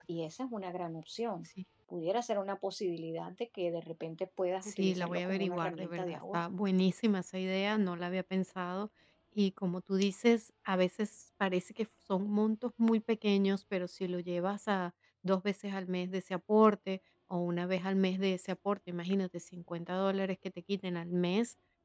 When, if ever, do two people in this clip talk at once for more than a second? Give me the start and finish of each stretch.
4.6-6.4

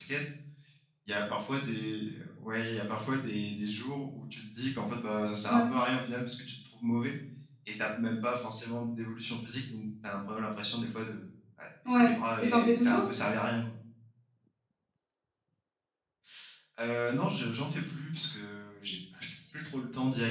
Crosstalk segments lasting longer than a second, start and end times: 11.9-13.1

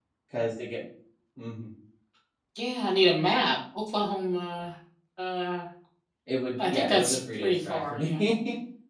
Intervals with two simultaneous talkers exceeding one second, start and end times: 6.6-8.2

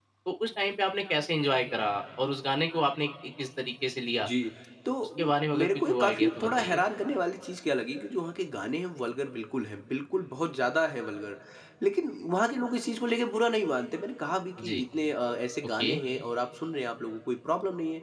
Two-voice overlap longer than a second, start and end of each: 5.2-6.8

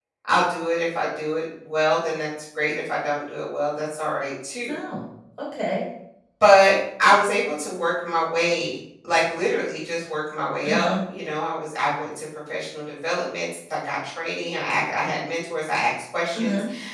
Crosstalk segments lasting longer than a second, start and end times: none

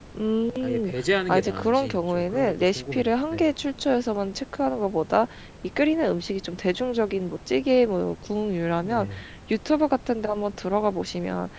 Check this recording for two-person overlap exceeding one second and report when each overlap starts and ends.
1.3-3.5

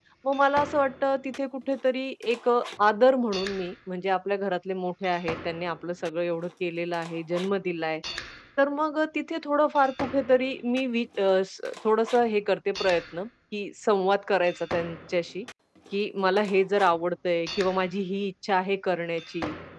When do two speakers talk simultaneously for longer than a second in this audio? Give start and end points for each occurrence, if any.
none

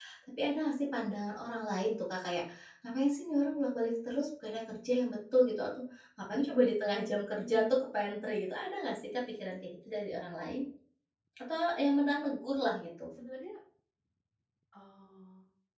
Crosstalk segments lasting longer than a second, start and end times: none

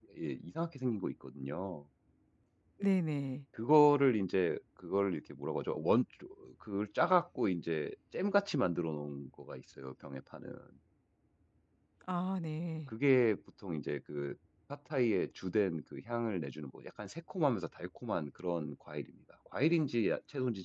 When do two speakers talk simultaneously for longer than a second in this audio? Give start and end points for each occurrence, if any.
none

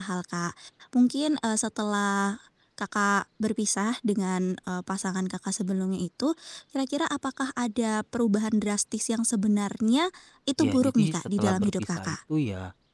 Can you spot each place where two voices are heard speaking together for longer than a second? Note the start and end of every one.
10.6-12.2

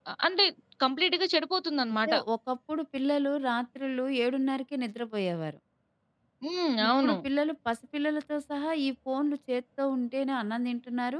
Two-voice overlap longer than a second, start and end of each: none

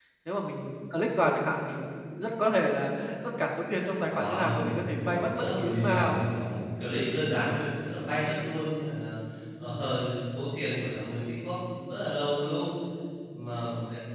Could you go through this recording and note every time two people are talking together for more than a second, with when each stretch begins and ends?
4.0-6.2

